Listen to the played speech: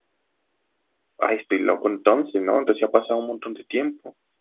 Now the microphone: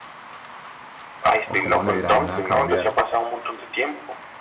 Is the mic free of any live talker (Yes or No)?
No